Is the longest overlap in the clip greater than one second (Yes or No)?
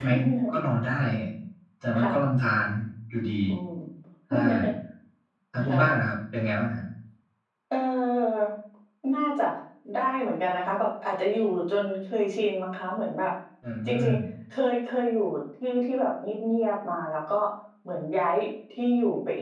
No